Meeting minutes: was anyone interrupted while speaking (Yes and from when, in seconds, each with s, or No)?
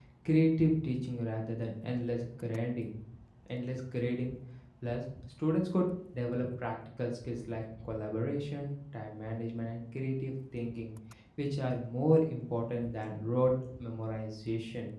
No